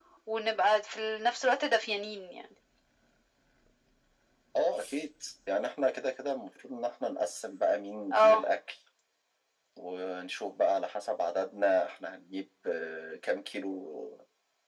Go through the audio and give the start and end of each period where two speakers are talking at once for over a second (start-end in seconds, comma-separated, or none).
none